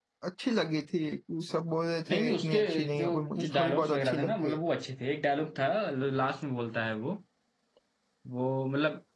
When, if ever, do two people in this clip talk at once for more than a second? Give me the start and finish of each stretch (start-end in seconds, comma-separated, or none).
2.1-4.5